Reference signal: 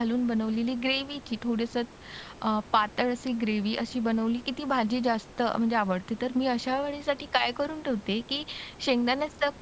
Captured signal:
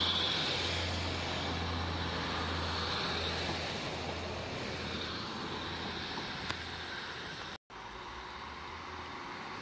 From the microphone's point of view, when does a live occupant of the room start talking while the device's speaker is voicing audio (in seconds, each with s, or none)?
none